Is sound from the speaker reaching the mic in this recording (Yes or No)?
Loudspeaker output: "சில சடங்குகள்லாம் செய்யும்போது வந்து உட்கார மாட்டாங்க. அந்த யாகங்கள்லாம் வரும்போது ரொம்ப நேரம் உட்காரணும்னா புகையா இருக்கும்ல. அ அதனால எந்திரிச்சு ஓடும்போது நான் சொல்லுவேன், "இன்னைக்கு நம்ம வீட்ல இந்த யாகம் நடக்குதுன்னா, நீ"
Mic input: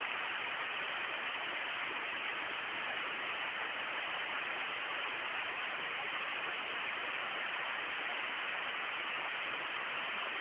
No